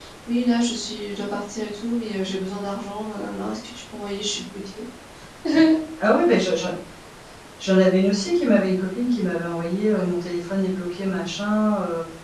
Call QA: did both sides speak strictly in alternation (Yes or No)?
Yes